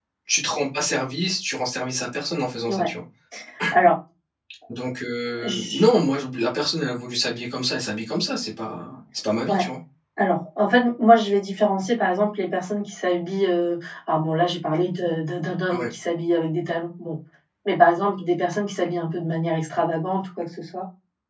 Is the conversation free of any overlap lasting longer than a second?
Yes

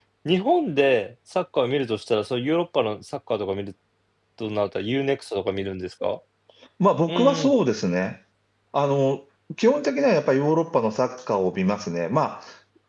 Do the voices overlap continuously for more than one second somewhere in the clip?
No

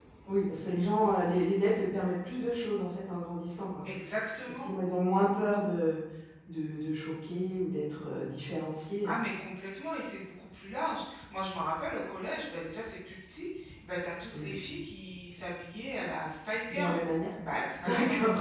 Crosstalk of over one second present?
No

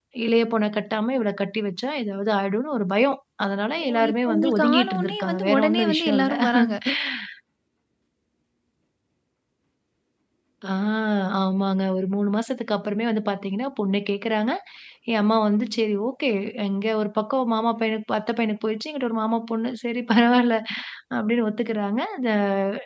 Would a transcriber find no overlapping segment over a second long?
No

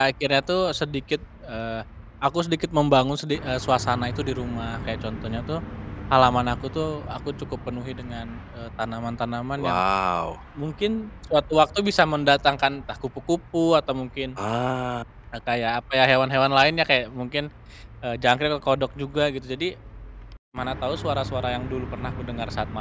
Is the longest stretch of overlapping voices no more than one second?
Yes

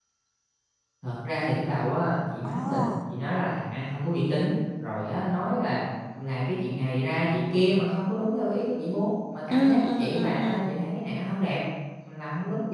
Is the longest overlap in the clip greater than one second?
Yes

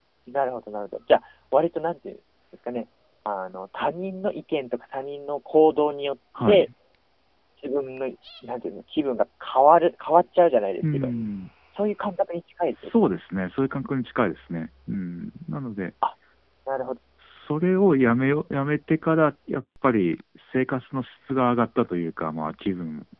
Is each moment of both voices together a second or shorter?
Yes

